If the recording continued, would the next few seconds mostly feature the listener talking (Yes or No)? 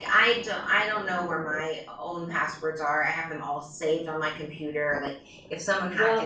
No